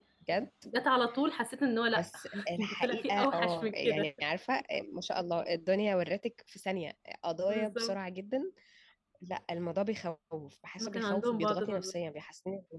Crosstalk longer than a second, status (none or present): present